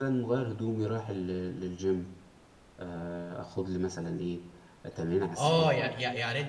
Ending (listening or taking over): taking over